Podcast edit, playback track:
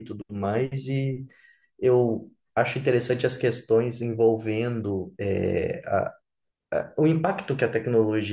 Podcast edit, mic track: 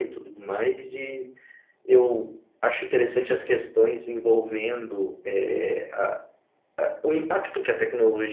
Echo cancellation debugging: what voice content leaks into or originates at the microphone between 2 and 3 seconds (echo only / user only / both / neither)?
echo only